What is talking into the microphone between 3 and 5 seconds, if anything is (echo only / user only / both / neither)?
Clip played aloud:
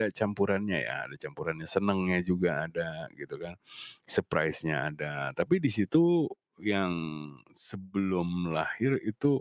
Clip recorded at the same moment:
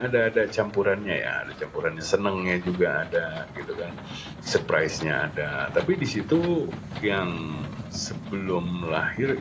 echo only